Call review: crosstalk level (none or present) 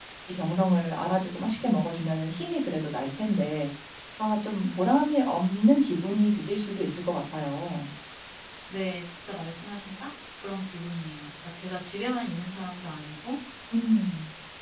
none